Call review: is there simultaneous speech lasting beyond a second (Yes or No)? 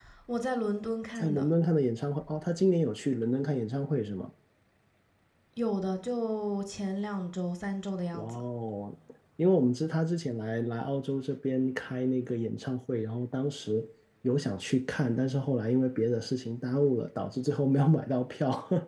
No